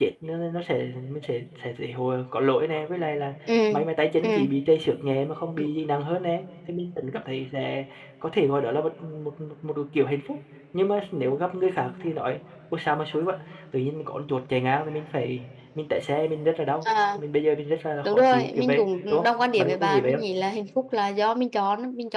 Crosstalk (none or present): present